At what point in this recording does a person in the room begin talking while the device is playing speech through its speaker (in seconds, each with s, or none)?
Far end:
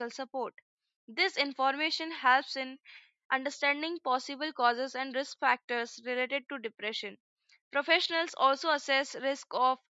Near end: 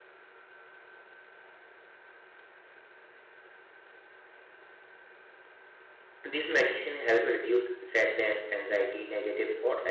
6.2 s